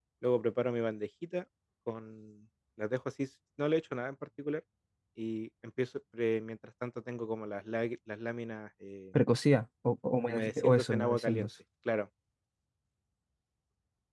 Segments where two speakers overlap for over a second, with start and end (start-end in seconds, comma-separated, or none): 10.3-11.5